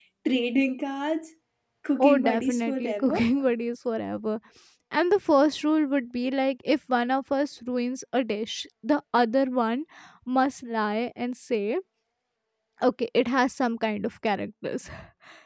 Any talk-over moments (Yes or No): Yes